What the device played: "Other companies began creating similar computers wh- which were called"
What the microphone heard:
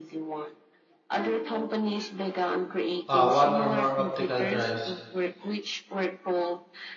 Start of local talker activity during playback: 3.1 s

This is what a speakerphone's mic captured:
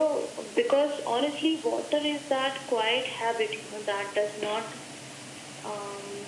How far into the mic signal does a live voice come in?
none

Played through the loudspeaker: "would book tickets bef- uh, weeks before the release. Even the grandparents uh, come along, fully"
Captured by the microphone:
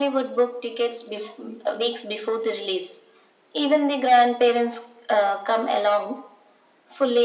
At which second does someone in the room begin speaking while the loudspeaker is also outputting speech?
none

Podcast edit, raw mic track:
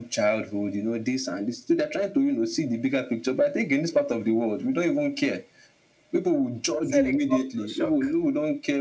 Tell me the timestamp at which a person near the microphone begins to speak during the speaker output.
6.8 s

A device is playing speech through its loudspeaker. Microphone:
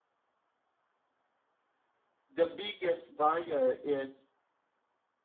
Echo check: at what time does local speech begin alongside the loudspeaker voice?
2.3 s

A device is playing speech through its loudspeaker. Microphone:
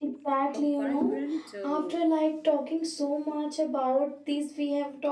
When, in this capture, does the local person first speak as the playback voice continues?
0.5 s

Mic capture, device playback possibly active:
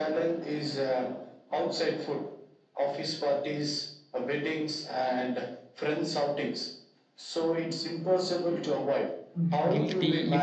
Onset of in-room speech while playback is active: 9.3 s

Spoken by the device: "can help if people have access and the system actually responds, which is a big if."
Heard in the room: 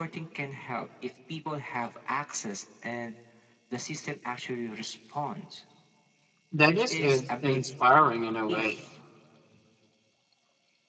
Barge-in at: 6.5 s

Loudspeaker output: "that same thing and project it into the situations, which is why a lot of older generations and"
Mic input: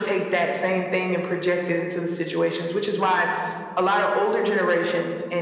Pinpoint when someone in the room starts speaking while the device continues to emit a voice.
none

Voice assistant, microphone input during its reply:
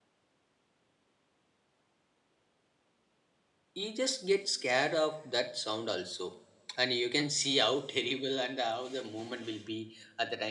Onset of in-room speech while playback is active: 3.7 s

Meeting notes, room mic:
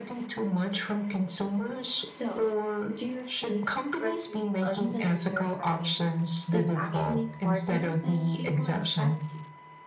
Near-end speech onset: 2.0 s

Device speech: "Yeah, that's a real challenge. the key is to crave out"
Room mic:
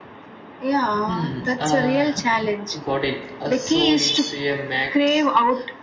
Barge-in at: 1.0 s

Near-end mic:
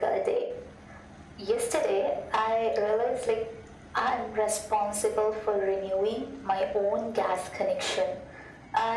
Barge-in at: none

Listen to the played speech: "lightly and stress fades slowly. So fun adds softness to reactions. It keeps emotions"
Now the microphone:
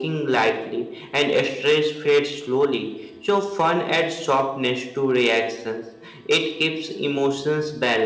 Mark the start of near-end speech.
none

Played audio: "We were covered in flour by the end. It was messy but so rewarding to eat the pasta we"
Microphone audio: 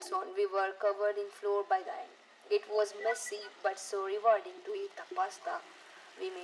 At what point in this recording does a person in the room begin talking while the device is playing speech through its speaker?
none

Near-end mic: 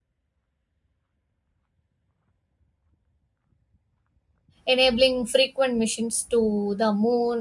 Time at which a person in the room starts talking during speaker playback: 4.7 s

